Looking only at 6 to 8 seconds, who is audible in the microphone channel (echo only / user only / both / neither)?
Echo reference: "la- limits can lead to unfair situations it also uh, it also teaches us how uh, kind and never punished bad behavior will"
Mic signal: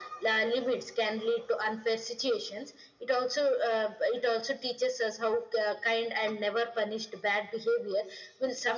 echo only